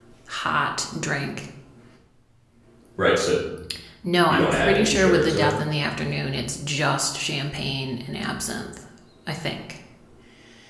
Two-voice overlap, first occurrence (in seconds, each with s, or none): 4.3 s